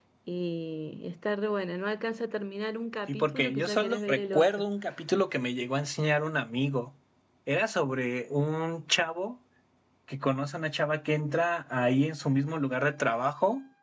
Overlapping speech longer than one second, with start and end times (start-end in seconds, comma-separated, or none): 3.1-4.6